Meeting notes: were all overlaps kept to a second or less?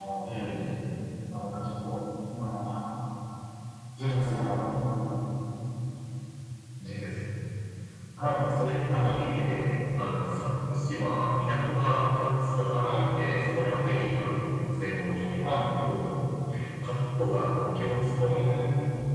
Yes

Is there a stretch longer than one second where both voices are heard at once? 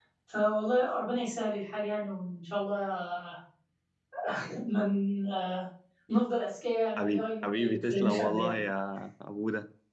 Yes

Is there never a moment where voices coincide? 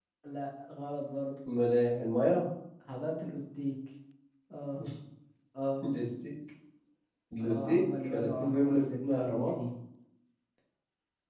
No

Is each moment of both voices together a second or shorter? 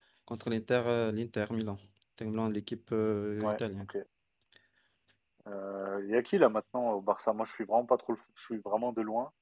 Yes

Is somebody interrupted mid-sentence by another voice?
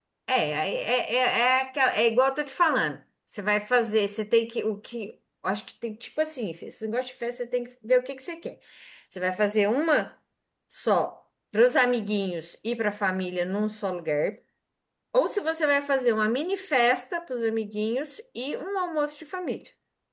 No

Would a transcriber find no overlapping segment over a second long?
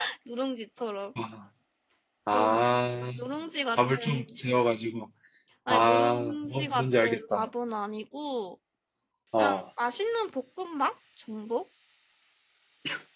No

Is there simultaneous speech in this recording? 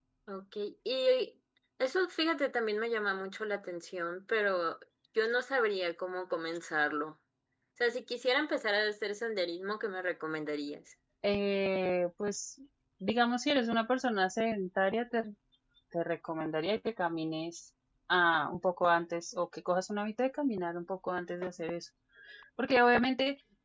No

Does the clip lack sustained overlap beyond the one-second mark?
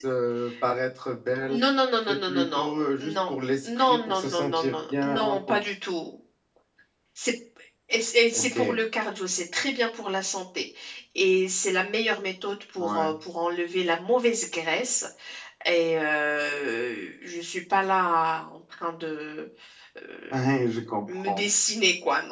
No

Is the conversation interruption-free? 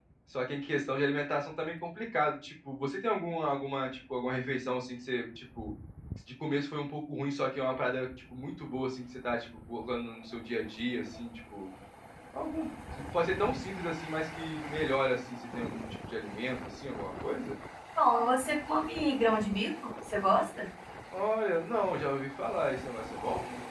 Yes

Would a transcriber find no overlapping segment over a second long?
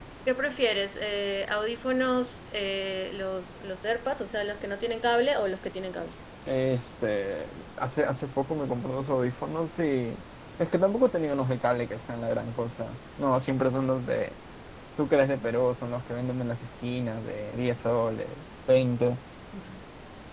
Yes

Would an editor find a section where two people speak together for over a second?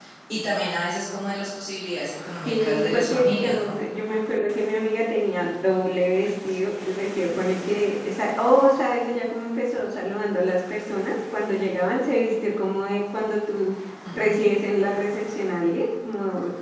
Yes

